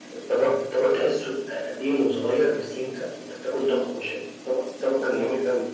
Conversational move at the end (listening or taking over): listening